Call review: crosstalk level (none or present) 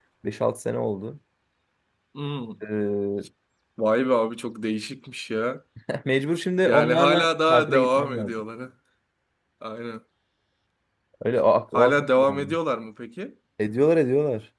present